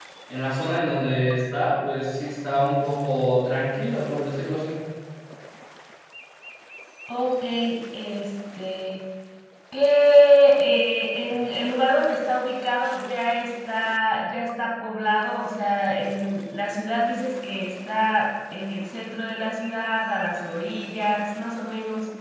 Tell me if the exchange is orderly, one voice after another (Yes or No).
Yes